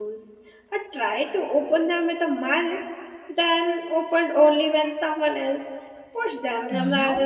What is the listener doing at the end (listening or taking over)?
taking over